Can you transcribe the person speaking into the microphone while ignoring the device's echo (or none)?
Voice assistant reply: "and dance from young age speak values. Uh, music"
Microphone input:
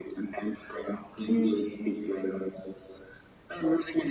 Mm.